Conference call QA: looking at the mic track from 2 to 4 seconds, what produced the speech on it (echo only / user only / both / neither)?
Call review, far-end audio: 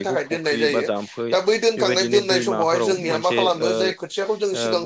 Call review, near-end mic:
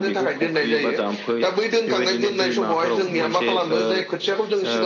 echo only